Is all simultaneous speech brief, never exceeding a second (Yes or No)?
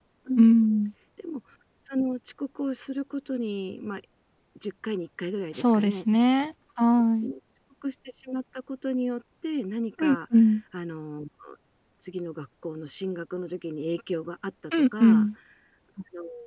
Yes